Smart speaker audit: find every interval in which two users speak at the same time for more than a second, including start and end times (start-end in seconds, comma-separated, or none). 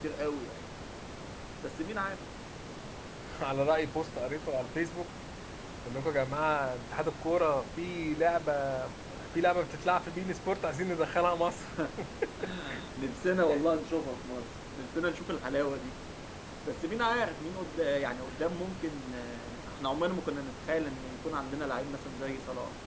none